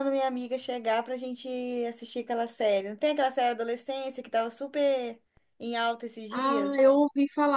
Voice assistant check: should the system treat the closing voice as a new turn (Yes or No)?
Yes